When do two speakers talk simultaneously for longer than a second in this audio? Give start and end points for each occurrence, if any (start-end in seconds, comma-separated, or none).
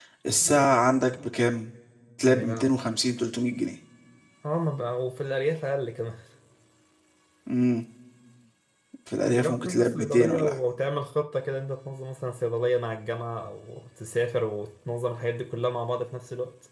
9.2-10.5